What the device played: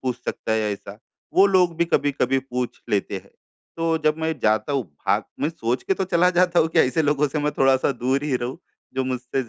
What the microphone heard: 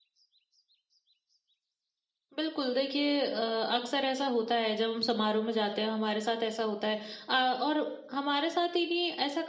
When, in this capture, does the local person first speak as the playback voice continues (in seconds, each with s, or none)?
2.4 s